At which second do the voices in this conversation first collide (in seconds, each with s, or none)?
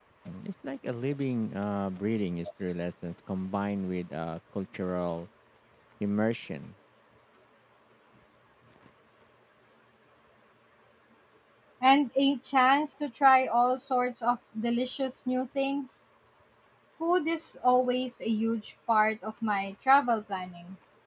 none